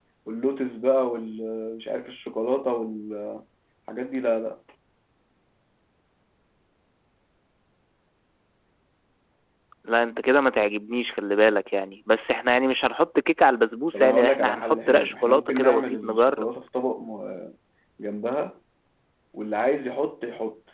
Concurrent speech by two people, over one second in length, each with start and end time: 13.9-16.5

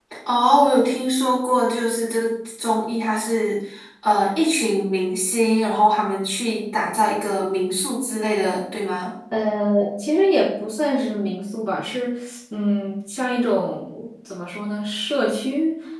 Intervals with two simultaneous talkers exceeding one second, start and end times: none

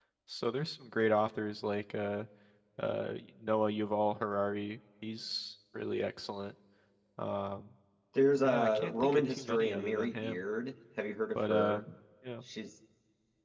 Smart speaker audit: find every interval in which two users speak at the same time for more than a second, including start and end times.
8.4-10.4

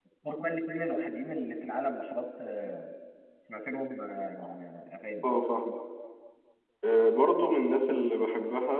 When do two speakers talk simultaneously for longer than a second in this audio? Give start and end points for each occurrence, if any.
none

